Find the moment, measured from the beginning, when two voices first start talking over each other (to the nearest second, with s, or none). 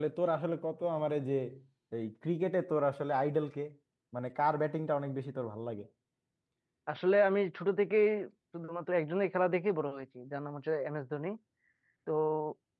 none